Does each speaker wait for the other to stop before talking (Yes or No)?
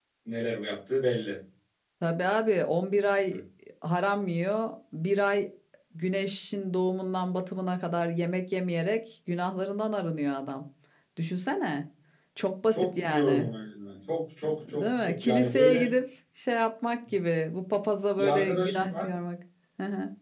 No